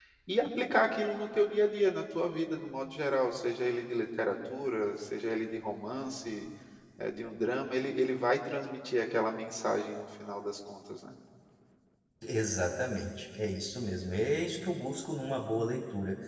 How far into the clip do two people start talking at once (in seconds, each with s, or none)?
none